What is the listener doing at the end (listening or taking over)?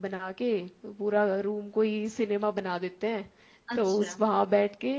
listening